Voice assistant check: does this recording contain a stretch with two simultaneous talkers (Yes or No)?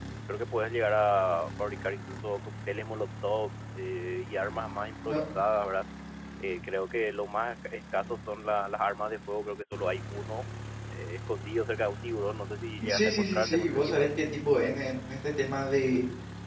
Yes